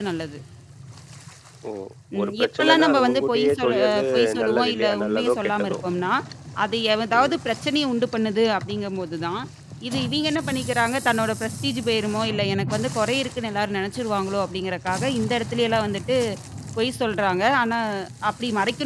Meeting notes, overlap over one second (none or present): present